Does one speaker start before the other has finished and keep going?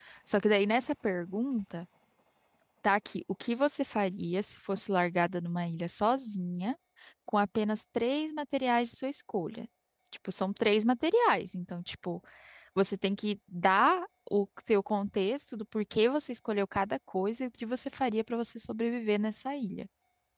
No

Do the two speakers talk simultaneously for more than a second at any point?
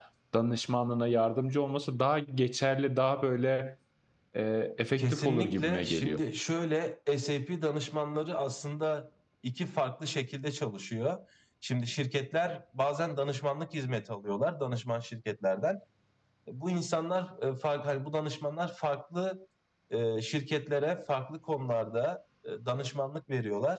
Yes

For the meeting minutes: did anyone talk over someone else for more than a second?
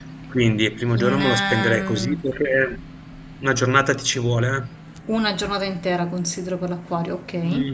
Yes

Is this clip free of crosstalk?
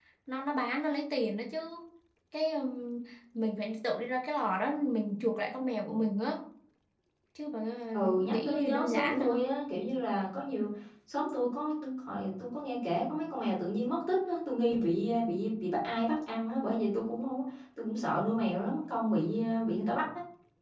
No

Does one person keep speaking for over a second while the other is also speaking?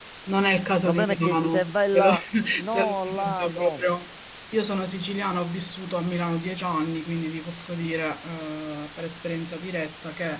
Yes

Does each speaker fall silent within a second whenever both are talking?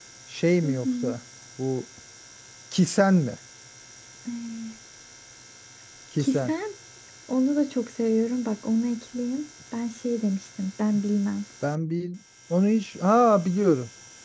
Yes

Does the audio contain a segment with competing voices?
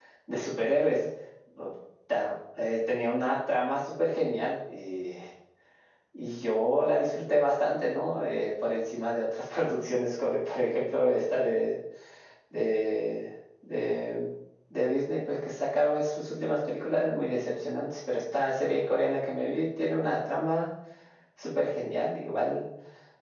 No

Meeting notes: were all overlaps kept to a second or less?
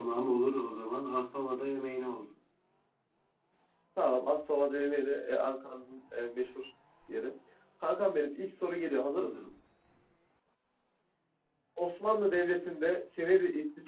Yes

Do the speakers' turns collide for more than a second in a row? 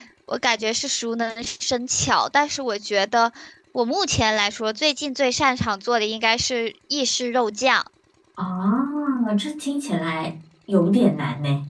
No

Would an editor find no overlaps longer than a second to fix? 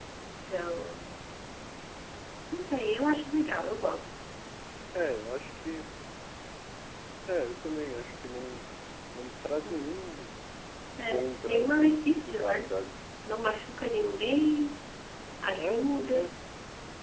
No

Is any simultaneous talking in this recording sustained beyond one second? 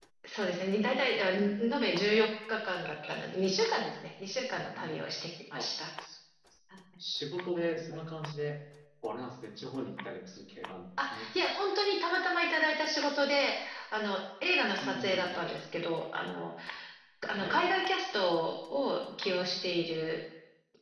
No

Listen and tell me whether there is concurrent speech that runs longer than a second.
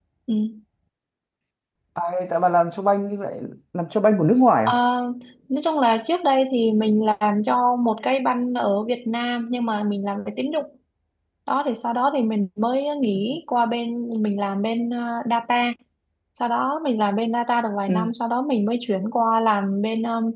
No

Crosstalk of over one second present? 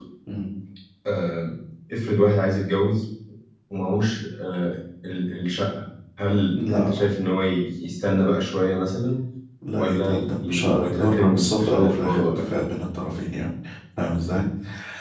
Yes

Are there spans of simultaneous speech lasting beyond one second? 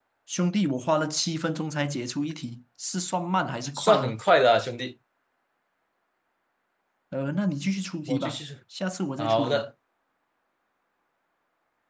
No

